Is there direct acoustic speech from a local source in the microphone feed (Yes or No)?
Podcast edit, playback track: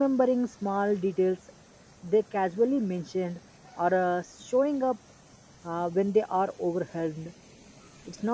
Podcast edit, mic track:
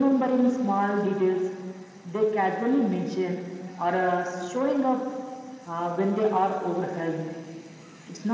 No